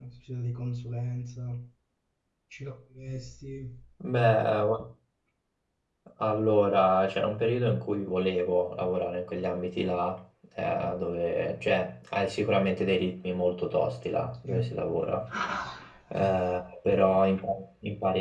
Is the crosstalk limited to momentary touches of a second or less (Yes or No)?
Yes